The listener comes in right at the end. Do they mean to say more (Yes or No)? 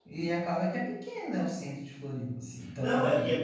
Yes